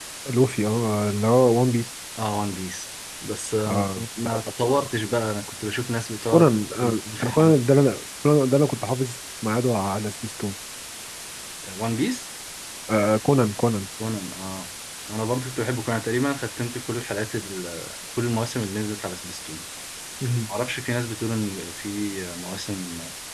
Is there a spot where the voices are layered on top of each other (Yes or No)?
Yes